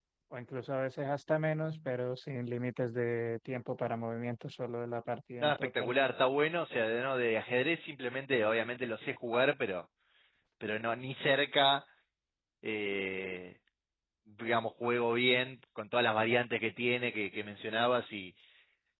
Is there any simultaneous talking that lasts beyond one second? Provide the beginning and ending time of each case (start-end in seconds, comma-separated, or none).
none